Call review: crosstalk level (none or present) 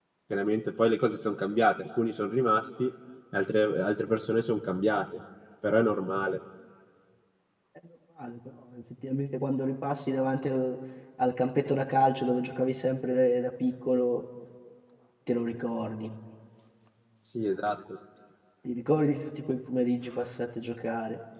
none